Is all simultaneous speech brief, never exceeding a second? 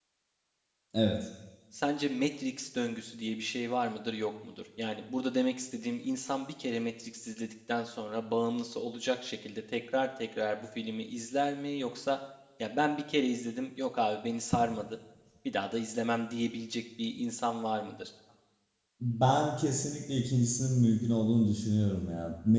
Yes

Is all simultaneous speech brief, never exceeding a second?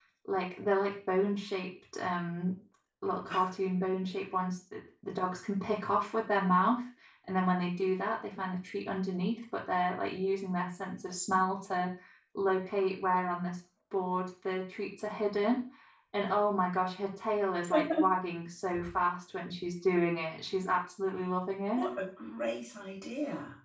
Yes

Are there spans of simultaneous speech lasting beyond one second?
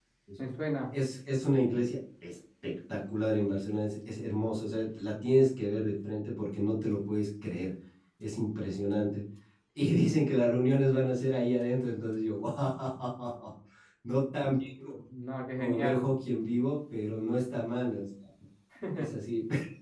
No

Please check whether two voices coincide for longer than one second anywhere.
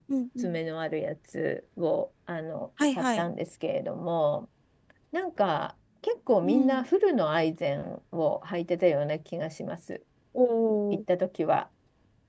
No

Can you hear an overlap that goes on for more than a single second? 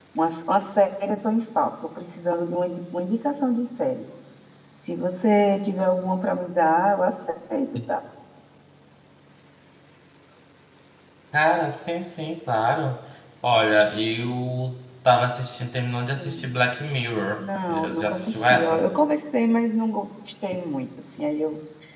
Yes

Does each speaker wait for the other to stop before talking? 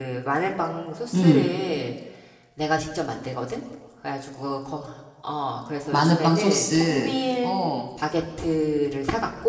No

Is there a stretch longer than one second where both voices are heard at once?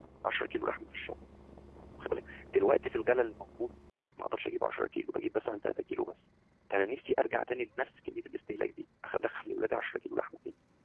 No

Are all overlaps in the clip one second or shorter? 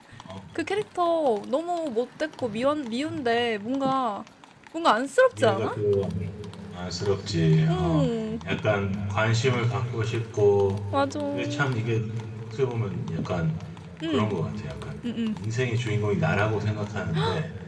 Yes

